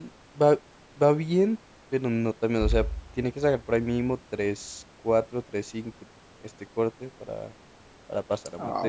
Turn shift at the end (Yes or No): Yes